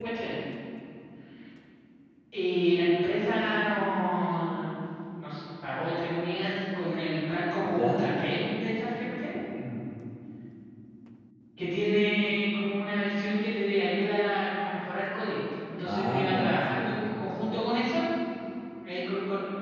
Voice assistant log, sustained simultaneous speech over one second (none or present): present